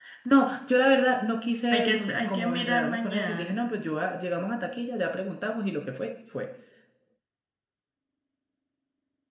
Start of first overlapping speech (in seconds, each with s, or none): 1.7 s